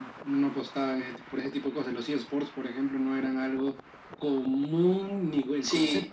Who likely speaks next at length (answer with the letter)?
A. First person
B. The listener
B